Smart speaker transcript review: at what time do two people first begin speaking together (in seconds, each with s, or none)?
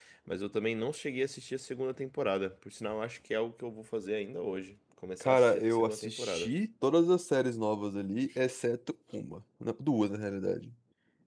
5.2 s